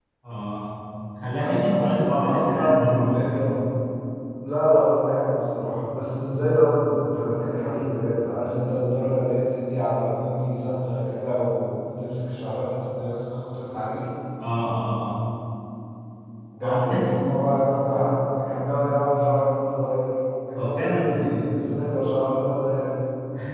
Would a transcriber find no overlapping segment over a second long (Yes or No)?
No